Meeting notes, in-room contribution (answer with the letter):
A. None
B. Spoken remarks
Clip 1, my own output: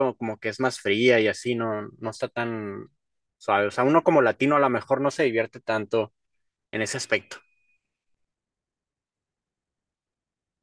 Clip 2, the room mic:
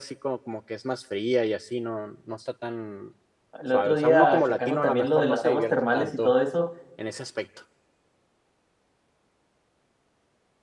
B